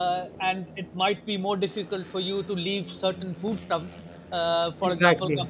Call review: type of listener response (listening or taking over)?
listening